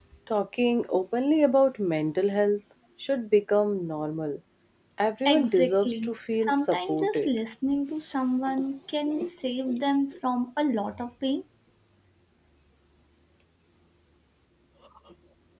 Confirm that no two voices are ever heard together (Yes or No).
No